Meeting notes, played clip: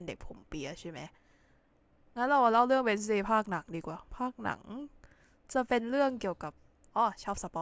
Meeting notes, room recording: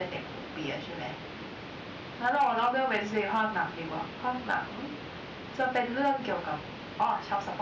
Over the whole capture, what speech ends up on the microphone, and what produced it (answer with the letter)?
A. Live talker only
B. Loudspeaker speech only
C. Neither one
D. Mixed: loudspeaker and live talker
B